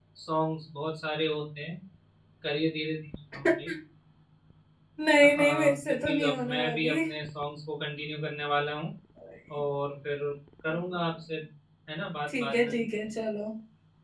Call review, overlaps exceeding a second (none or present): present